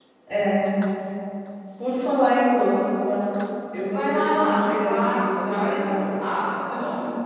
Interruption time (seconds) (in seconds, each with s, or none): 3.9 s